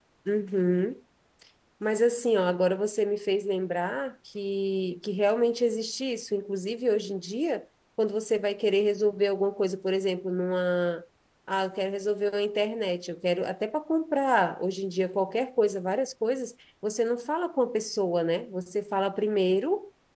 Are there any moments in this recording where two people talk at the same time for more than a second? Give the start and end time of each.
none

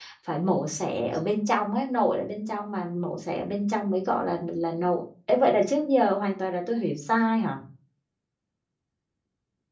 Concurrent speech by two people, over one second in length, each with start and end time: none

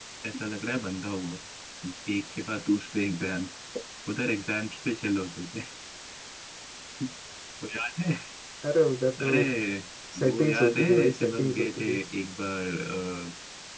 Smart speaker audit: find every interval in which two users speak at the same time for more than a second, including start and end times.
10.3-12.0

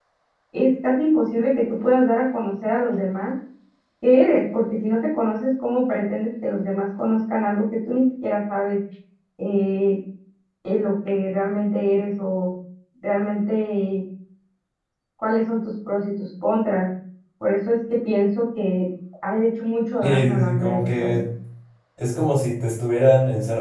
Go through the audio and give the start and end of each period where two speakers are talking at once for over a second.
20.0-21.2

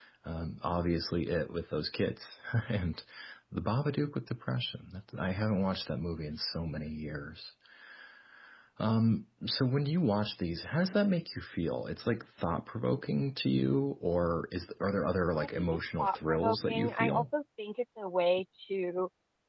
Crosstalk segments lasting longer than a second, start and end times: 15.4-17.2

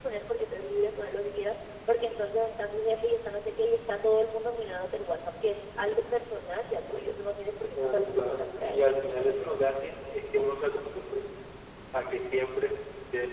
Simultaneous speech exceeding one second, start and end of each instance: 7.8-9.0

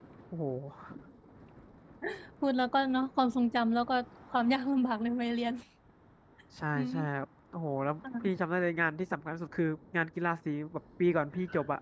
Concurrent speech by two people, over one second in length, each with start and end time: none

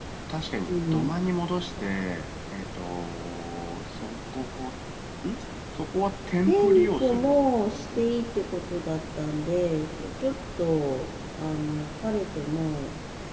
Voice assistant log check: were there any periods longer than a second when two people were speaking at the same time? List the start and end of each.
6.5-7.7

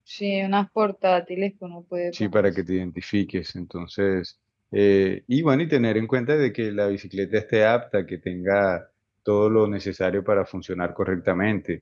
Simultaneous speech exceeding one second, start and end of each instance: none

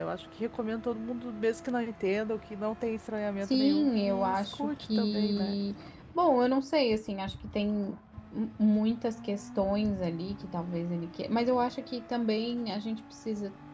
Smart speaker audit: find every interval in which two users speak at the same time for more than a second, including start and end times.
3.5-5.5

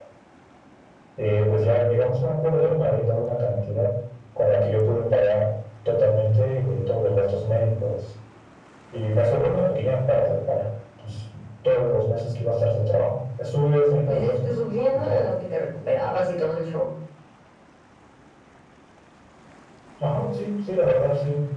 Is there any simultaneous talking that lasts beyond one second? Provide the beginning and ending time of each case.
14.1-15.2

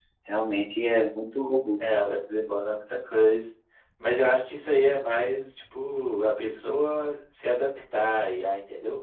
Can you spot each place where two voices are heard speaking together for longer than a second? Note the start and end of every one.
none

